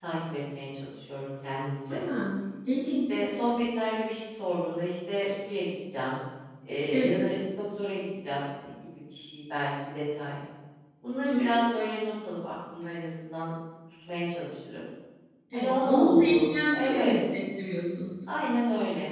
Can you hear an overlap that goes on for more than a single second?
Yes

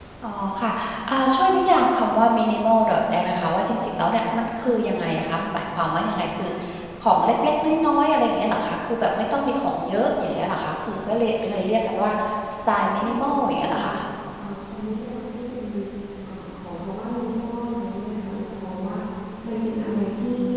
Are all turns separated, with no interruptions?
No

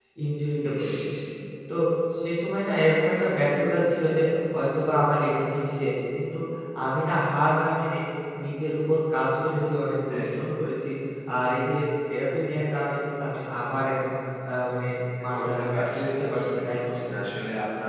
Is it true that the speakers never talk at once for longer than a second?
No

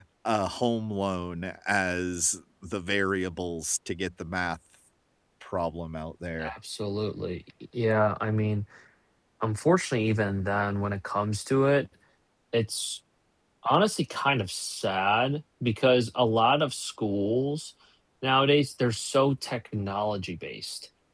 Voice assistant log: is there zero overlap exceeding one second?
Yes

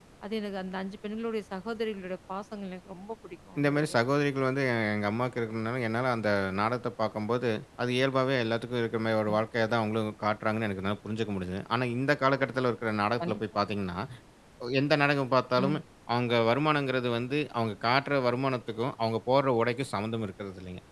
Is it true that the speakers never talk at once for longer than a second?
Yes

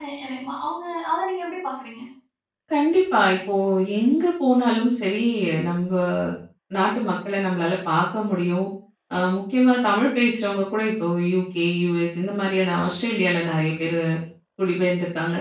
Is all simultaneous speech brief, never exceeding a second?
Yes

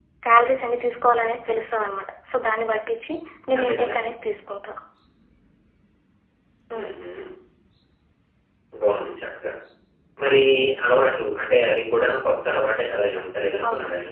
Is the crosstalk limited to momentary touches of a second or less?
Yes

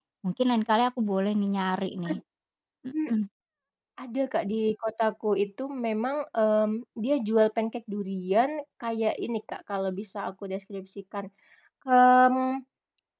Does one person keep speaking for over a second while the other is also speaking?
No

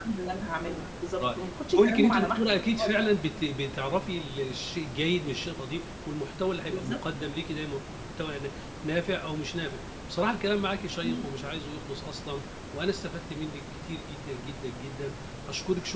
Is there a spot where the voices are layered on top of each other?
Yes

